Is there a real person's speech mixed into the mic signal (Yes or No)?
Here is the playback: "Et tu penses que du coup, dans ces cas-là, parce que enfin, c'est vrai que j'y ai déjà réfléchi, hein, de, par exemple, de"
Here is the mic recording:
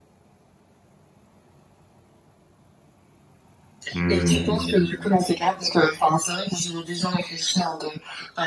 Yes